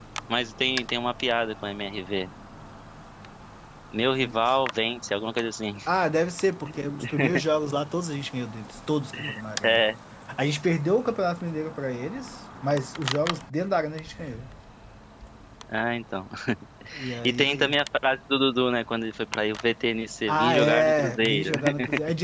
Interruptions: present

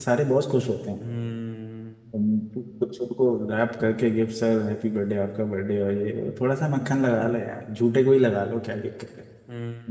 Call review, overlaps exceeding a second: none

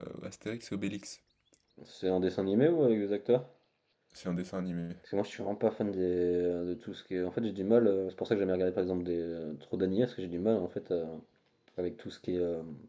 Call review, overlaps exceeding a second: none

